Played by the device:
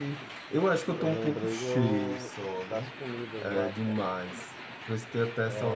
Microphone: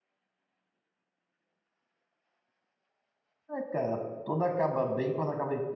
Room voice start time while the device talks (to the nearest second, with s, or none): 3 s